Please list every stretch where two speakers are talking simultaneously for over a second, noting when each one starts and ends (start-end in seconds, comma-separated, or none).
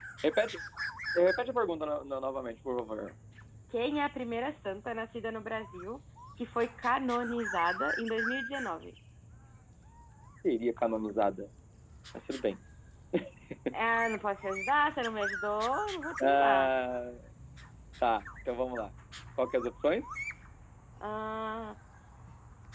none